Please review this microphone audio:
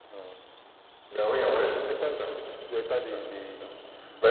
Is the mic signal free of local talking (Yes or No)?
No